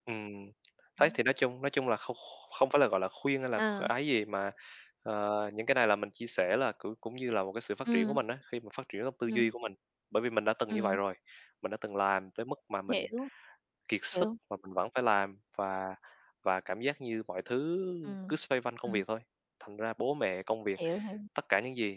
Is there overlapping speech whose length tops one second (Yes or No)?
No